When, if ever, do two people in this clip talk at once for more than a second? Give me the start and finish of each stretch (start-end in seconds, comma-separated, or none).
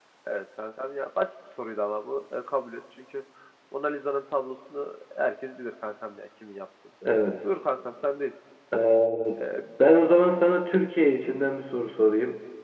none